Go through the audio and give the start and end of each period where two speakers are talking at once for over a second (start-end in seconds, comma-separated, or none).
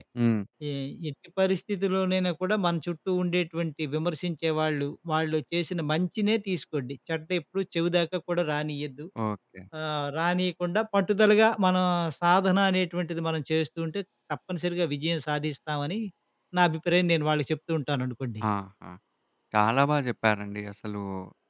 none